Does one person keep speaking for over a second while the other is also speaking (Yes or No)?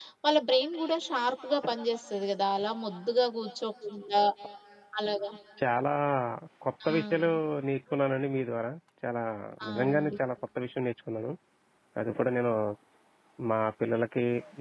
No